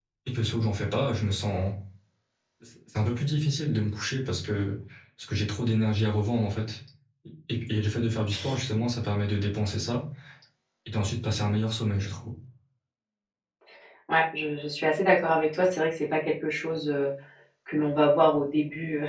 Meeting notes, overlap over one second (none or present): none